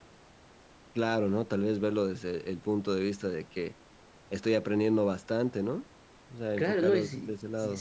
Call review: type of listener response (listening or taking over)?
taking over